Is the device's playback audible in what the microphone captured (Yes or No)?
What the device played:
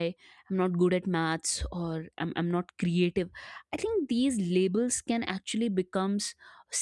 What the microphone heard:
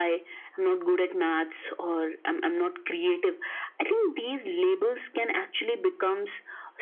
Yes